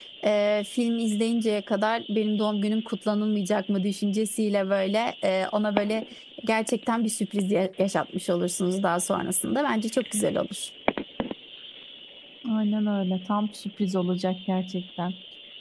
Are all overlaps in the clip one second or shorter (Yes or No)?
Yes